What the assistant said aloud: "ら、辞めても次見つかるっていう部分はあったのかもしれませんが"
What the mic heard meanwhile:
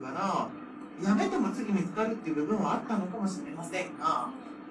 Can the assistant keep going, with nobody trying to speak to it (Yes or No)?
No